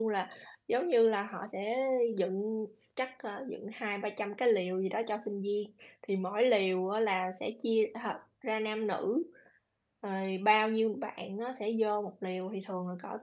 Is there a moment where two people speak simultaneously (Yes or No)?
No